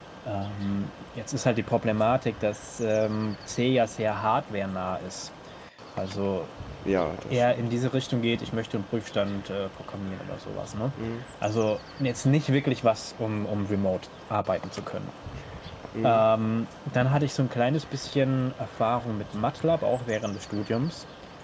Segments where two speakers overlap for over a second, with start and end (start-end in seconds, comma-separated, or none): none